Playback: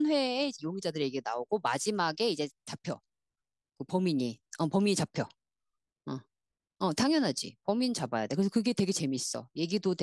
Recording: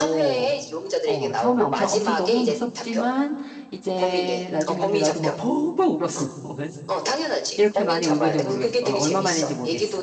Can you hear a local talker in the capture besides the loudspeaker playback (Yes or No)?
Yes